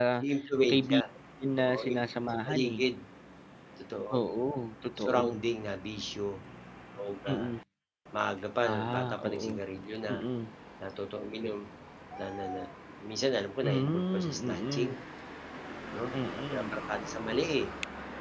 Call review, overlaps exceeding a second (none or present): present